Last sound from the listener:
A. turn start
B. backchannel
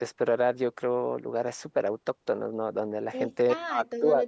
A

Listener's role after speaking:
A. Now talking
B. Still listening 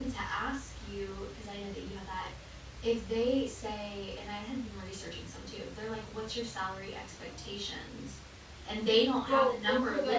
A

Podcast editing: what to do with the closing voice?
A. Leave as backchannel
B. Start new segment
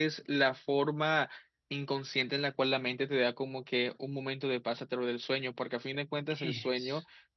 A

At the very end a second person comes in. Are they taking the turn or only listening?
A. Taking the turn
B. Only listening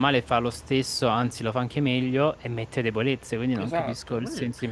A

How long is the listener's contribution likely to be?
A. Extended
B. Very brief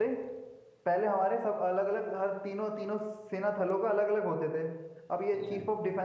B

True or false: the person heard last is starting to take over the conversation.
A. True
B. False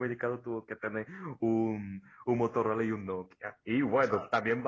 B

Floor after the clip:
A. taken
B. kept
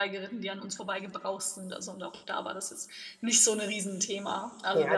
A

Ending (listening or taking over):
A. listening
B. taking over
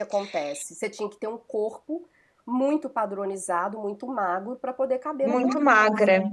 B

